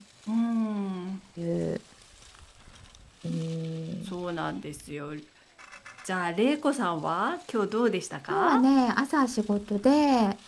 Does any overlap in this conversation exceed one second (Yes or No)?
No